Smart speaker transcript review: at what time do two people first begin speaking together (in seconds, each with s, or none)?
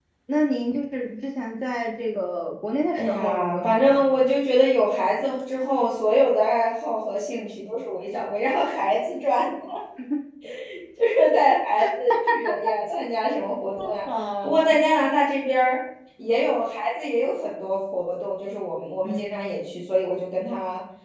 3.0 s